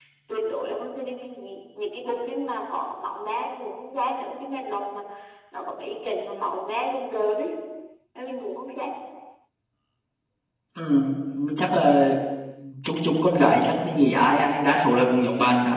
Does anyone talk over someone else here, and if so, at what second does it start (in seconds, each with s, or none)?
none